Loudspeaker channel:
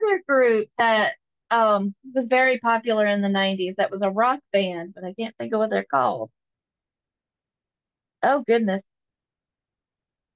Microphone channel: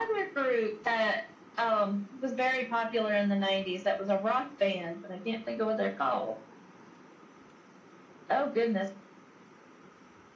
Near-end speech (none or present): none